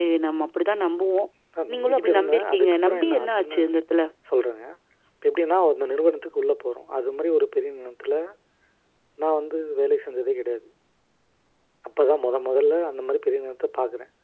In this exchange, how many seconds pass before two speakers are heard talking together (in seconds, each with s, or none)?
1.7 s